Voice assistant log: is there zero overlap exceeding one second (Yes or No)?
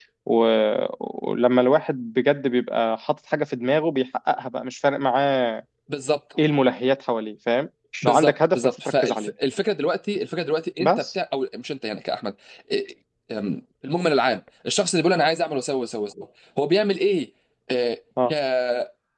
No